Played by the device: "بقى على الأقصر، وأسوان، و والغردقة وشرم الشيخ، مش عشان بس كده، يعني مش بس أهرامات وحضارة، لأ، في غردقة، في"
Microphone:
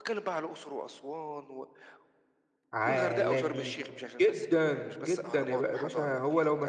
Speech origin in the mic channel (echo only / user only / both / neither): both